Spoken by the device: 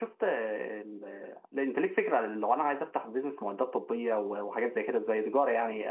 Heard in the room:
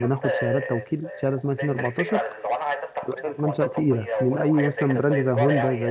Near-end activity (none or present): present